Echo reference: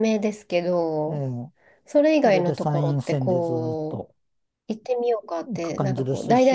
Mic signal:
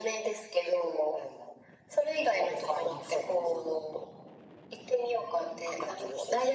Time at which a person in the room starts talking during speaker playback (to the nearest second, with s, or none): none